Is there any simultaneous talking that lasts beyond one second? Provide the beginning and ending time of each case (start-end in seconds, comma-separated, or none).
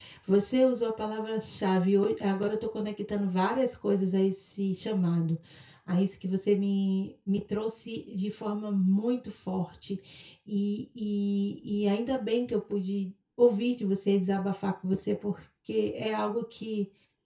none